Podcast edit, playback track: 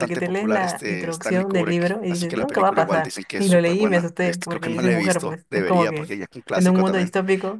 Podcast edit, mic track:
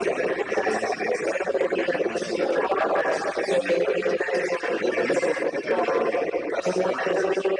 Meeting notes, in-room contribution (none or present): present